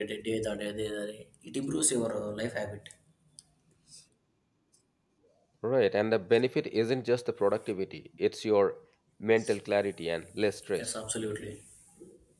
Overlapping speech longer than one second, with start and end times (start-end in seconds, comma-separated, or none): none